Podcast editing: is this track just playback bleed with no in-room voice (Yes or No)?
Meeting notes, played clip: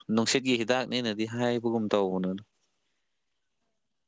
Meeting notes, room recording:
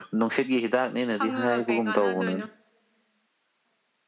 No